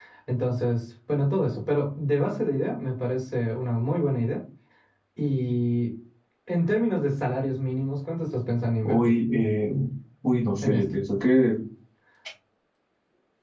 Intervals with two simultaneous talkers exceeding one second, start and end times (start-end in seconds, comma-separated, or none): none